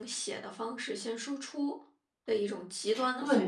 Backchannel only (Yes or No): No